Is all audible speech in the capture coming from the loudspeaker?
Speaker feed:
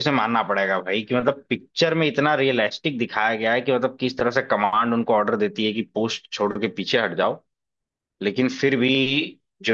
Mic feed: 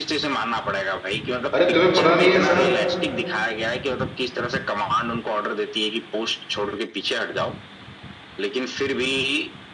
No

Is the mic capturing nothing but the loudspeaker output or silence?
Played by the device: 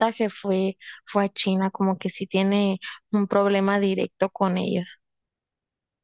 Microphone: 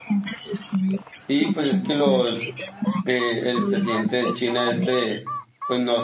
No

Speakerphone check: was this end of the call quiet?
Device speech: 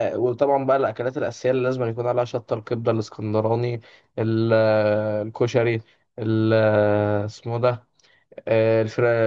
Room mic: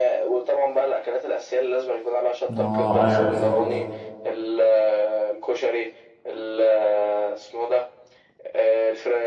No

